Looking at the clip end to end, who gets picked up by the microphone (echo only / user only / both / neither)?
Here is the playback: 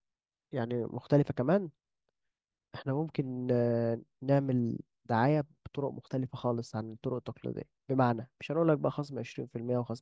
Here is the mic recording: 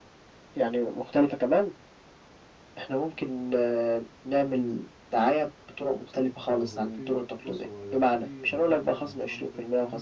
both